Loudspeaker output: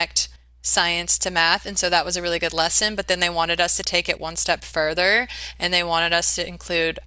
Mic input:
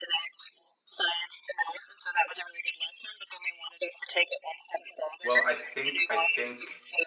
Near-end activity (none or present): present